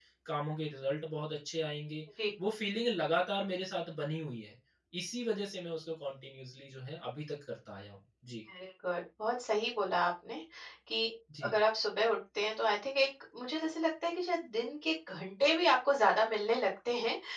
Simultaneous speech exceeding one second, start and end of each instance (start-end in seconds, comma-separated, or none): none